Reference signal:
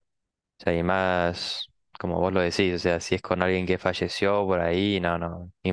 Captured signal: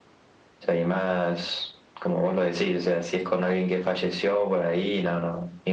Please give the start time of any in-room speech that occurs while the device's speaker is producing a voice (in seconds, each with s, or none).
none